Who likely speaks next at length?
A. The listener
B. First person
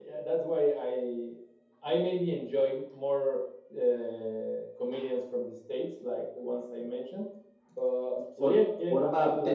A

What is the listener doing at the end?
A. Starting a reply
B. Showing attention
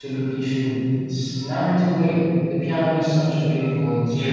A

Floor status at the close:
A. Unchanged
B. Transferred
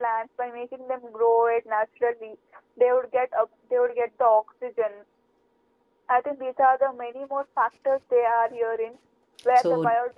A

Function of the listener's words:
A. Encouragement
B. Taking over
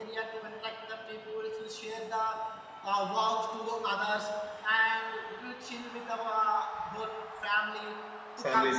A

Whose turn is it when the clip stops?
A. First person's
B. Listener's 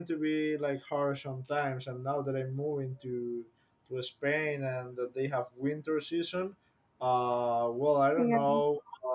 A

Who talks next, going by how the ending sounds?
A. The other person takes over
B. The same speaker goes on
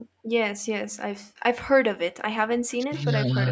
A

